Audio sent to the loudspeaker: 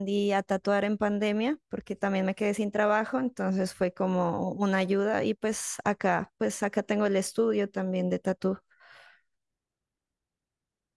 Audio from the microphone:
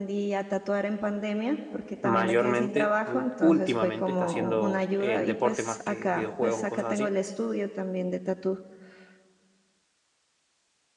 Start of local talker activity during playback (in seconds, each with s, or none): 2.0 s